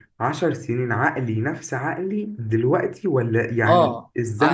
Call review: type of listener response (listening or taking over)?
taking over